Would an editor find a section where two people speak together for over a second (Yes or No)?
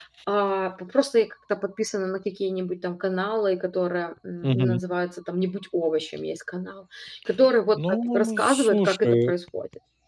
Yes